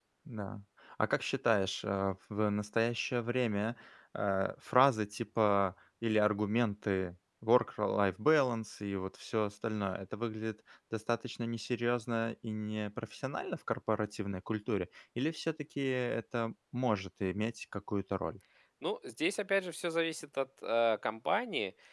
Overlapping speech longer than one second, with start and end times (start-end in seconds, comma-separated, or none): none